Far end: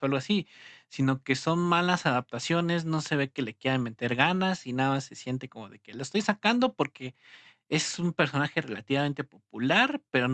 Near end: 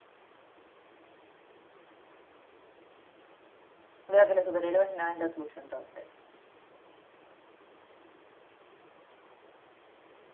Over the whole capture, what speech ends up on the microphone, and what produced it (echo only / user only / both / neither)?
user only